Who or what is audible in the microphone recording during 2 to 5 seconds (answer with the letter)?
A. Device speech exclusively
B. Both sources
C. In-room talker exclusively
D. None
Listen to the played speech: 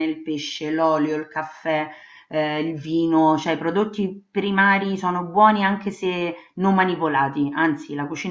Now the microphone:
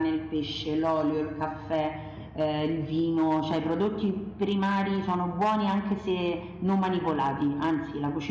A